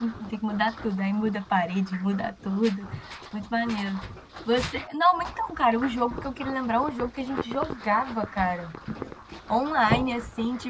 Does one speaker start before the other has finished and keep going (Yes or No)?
No